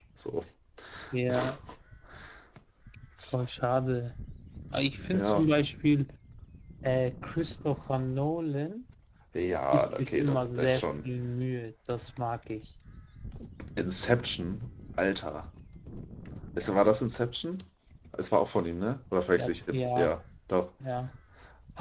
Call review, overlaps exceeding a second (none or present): present